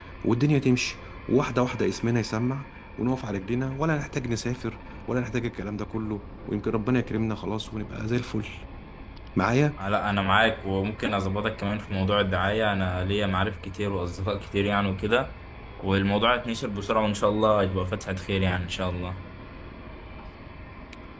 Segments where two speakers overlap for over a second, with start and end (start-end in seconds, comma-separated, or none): none